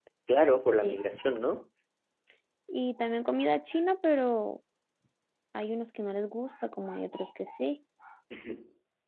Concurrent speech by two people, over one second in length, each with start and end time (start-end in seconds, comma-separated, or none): none